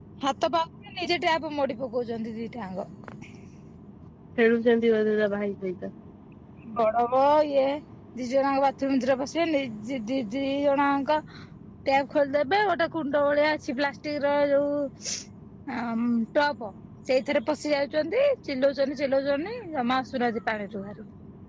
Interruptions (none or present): none